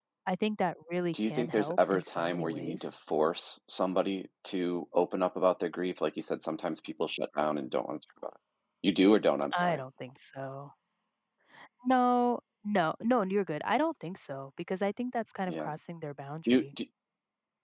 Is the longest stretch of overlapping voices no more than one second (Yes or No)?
No